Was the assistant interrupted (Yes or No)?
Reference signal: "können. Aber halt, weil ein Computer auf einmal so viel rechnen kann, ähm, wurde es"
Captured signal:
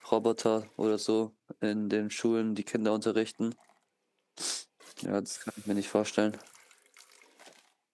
Yes